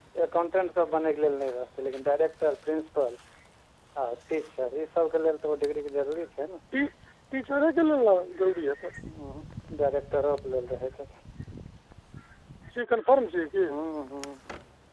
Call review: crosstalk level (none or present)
none